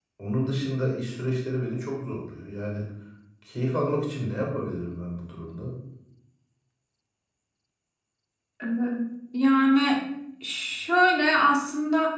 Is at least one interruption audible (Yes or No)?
No